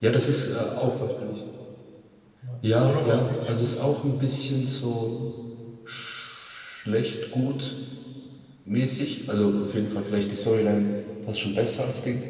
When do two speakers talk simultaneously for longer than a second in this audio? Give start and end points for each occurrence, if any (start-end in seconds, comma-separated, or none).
2.6-4.0